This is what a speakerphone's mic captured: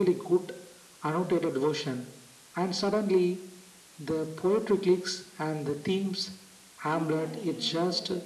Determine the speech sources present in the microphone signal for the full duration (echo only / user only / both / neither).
both